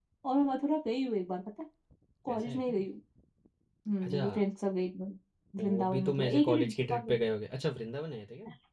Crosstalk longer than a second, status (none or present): present